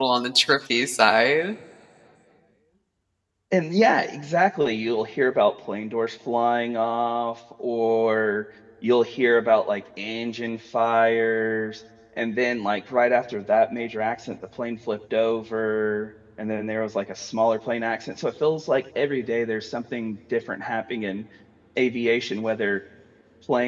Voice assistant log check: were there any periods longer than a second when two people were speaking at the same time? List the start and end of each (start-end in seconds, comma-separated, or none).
none